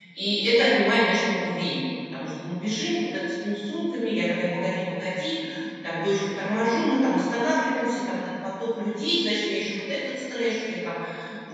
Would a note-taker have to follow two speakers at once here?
No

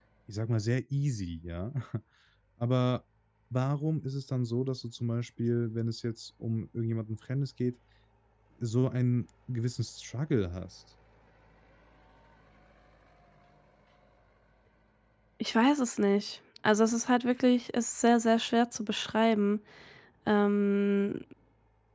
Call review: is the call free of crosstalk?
Yes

